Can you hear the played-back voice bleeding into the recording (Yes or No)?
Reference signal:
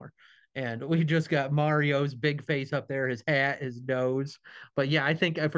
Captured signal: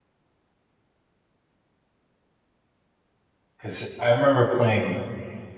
No